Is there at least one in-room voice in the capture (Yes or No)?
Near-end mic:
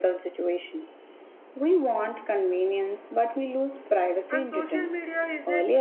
Yes